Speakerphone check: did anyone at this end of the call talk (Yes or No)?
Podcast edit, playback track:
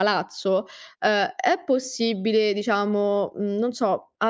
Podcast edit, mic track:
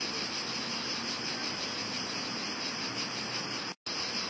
No